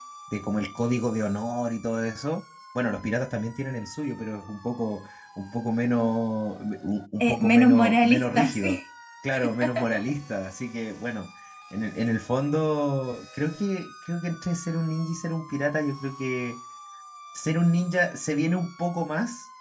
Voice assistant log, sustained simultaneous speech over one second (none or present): present